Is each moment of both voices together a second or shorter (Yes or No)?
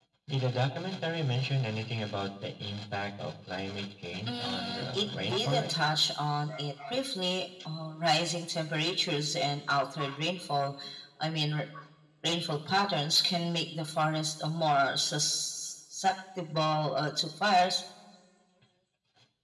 No